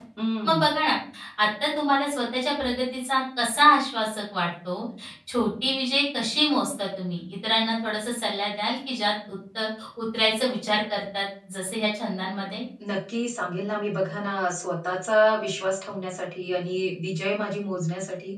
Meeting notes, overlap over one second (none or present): none